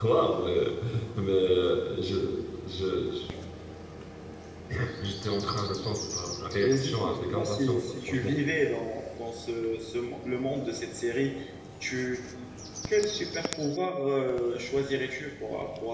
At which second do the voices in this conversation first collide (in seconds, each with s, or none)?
6.5 s